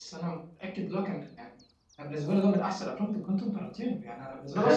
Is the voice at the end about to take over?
No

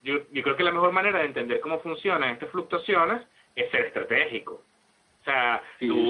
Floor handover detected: Yes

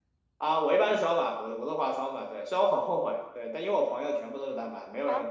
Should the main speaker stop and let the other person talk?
No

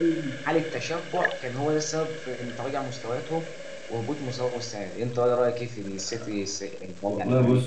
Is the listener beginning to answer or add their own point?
Yes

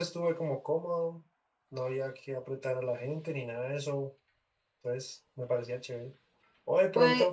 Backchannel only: Yes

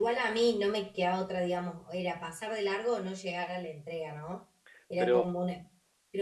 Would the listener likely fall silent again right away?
Yes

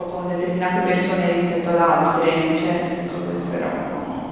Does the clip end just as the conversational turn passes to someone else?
Yes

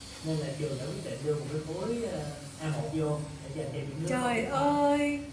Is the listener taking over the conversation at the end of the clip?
Yes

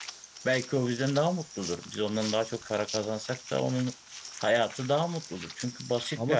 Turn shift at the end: Yes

